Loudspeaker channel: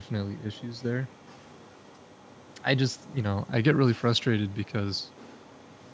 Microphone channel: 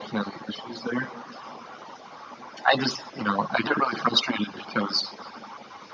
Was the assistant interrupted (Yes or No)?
No